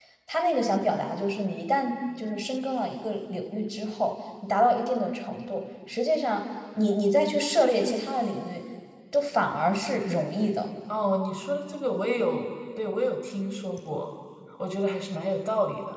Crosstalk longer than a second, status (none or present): none